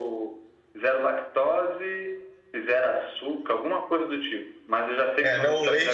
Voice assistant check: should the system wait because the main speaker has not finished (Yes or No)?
No